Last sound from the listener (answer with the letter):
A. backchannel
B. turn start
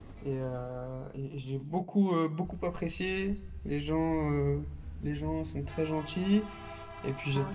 A